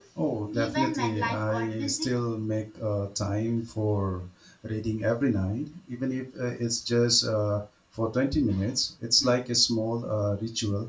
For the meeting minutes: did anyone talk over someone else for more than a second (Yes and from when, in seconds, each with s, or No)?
Yes, from 0.5 s